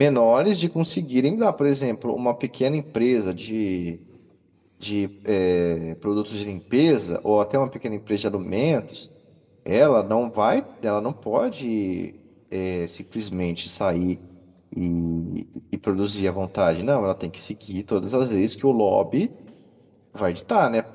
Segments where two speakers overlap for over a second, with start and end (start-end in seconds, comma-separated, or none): none